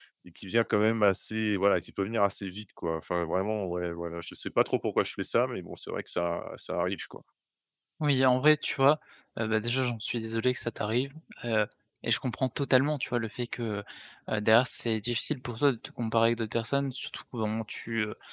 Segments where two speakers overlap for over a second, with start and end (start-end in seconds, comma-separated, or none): none